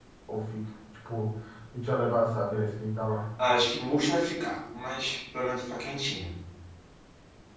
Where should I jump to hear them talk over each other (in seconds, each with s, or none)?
none